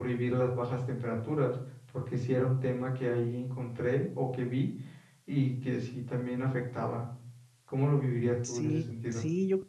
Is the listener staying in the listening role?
No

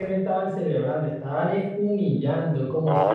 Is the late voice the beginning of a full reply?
No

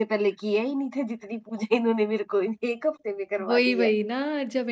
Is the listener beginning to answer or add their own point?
Yes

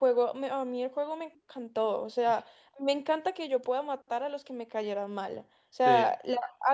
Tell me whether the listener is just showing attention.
Yes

